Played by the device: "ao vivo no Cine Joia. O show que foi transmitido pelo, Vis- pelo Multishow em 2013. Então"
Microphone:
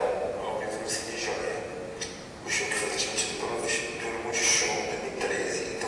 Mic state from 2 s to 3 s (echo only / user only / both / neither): echo only